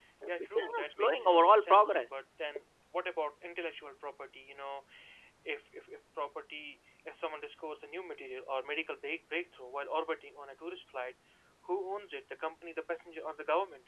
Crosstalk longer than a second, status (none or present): present